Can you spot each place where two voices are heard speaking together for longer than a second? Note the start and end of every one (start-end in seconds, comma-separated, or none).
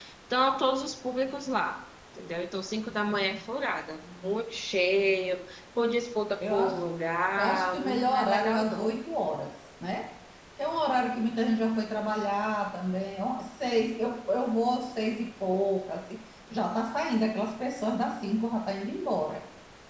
7.4-8.8